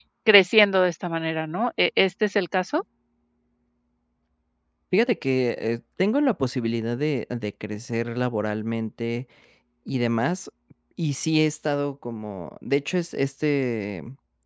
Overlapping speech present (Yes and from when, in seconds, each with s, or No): No